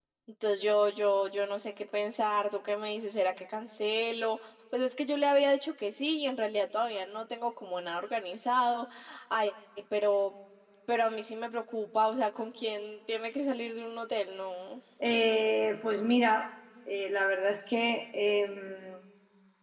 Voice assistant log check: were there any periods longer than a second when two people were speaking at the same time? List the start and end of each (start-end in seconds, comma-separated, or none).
none